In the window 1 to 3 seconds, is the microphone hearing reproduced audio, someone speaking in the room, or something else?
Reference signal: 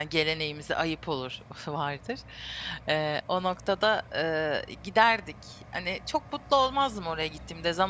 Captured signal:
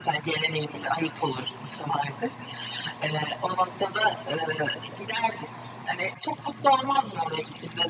echo only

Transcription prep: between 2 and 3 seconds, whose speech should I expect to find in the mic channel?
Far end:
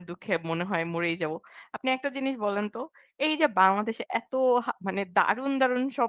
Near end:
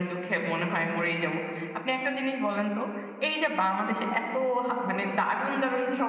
echo only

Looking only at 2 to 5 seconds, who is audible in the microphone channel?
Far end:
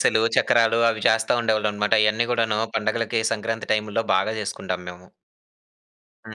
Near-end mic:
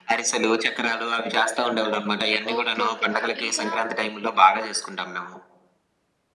both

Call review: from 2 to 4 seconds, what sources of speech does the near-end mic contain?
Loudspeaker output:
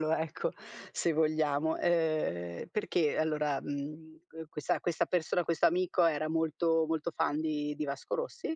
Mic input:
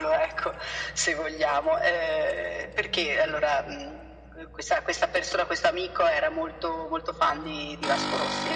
echo only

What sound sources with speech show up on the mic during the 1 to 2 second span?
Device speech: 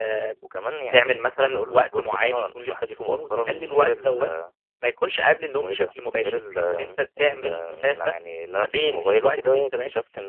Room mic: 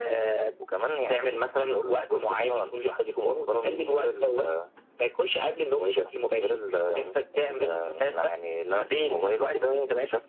echo only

